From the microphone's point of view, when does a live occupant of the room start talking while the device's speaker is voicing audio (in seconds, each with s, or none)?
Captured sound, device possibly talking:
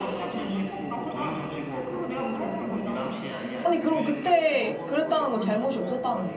3.6 s